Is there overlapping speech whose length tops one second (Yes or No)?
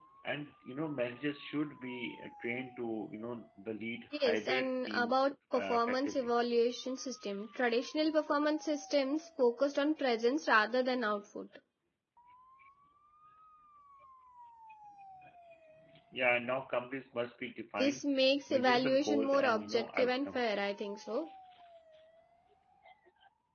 Yes